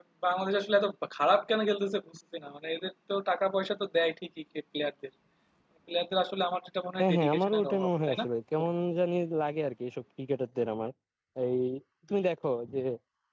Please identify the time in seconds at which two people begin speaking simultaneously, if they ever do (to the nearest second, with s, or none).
7 s